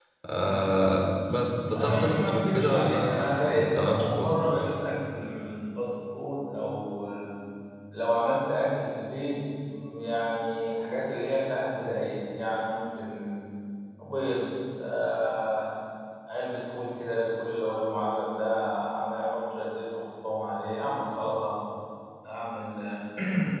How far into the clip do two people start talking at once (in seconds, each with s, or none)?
1.8 s